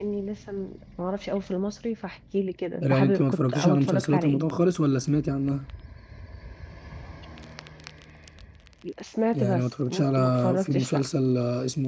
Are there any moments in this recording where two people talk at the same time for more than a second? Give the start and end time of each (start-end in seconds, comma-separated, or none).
2.8-4.5, 9.3-11.0